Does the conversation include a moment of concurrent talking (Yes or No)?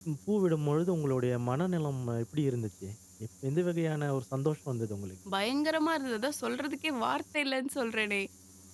No